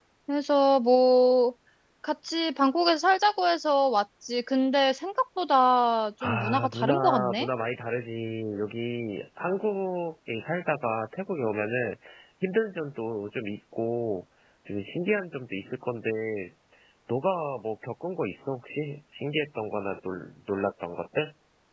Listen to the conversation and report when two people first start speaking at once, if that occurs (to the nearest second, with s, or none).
6 s